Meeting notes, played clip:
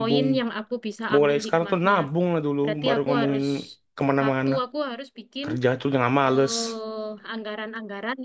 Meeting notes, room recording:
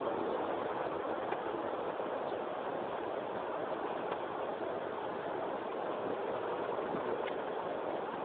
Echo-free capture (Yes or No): Yes